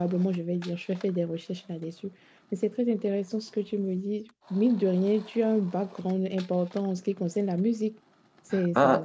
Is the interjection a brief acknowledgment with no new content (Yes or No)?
No